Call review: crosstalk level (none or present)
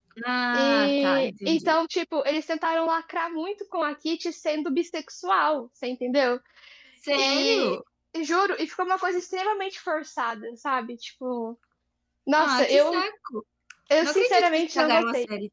present